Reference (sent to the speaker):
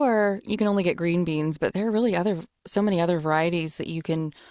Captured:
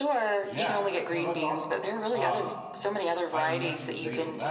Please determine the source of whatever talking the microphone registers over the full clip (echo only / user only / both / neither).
both